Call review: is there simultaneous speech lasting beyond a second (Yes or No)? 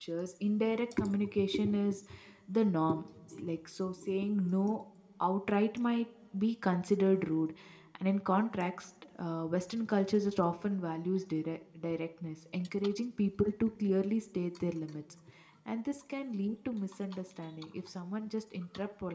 No